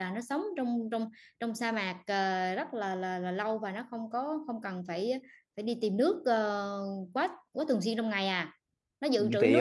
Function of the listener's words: taking over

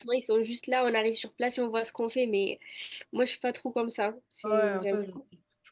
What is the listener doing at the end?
taking over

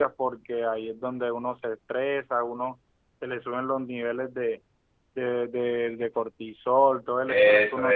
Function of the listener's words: taking over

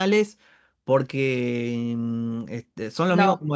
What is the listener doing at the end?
listening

